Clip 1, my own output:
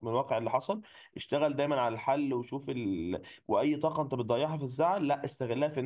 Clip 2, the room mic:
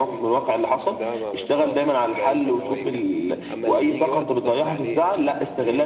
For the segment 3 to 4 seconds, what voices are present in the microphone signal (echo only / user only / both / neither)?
both